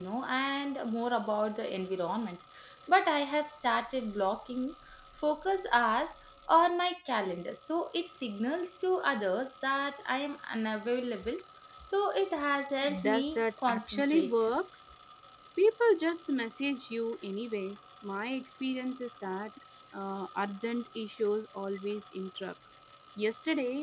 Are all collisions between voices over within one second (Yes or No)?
No